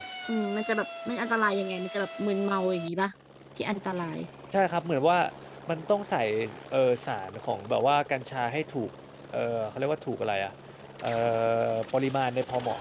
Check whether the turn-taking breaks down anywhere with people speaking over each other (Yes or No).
No